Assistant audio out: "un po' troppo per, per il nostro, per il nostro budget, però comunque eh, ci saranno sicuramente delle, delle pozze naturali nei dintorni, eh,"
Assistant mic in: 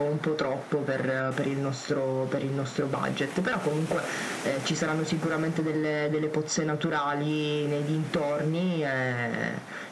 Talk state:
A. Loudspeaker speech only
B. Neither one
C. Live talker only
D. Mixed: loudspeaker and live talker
A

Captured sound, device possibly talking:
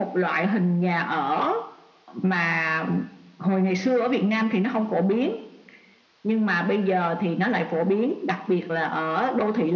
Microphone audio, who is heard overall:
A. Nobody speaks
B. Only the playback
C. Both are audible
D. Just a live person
B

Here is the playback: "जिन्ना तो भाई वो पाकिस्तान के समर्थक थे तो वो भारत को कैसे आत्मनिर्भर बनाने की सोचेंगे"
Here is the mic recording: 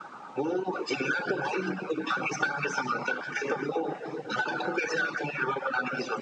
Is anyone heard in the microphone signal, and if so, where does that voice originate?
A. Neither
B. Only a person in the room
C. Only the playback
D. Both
C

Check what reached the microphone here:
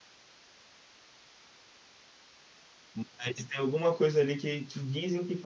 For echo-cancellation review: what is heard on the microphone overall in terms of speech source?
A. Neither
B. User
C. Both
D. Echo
B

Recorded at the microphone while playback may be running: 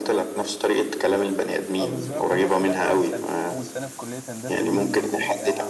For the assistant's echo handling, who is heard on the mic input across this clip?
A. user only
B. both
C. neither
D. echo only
B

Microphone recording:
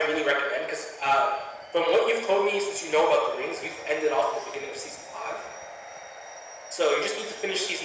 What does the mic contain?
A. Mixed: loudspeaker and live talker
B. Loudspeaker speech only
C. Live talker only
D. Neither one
B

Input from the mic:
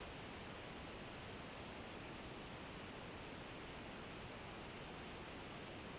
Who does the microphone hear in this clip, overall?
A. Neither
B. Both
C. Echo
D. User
A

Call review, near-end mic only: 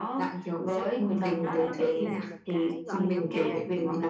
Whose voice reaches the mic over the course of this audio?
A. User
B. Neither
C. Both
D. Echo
C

